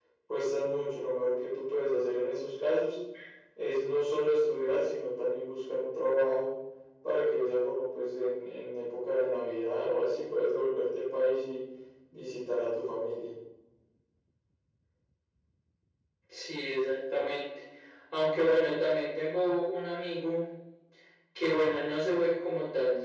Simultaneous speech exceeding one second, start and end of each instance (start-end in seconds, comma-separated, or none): none